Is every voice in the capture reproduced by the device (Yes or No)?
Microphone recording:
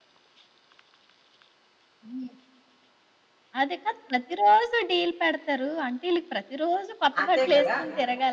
No